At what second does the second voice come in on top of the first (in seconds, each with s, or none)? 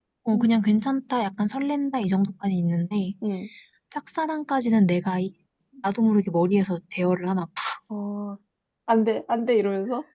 none